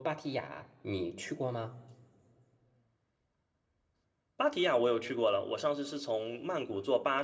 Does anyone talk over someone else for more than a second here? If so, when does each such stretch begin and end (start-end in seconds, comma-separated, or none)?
none